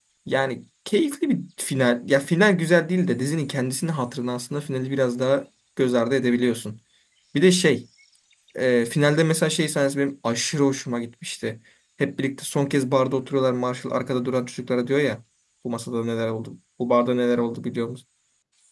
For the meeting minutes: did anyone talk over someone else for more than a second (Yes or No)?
No